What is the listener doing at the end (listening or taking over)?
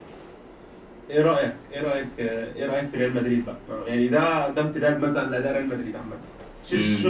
taking over